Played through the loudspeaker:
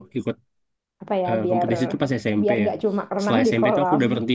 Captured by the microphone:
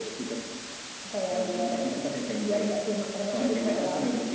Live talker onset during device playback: none

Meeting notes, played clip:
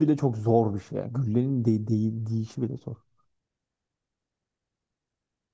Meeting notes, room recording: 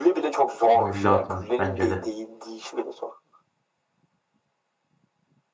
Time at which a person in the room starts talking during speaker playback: 0.7 s

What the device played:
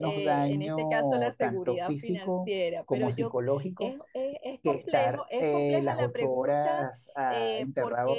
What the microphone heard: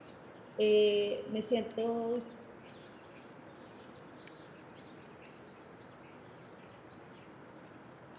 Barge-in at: 0.6 s

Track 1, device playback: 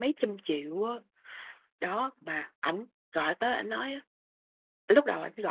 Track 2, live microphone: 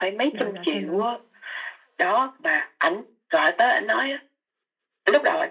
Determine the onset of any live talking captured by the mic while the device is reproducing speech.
0.3 s

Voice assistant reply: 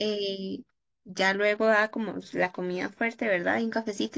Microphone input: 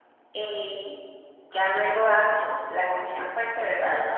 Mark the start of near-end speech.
none

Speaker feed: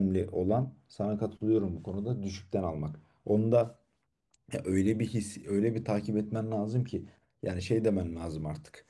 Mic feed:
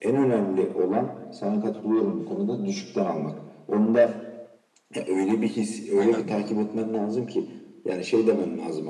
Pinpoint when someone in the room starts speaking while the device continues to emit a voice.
5.9 s

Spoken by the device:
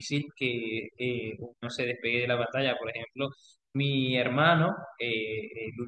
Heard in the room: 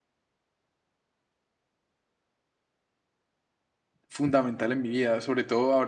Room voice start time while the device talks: 4.1 s

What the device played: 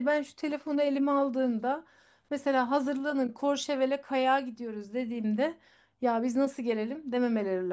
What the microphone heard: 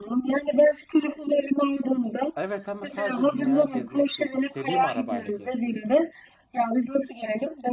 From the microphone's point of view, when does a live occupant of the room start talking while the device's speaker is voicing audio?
2.4 s

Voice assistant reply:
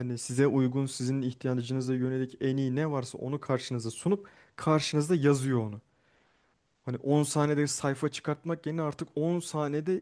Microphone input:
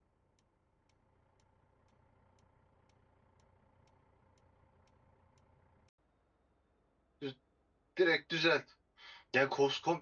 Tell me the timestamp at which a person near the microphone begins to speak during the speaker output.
7.2 s

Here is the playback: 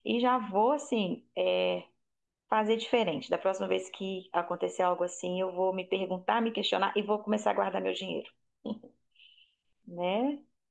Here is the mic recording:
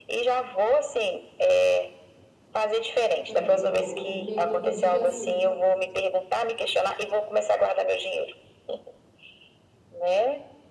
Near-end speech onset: 3.3 s

